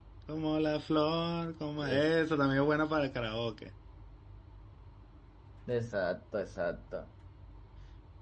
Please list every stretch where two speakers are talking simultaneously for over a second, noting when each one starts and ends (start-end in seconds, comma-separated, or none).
none